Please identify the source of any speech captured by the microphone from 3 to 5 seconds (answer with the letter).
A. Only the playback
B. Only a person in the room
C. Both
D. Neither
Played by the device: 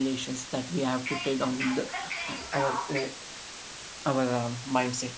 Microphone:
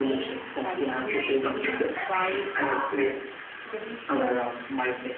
C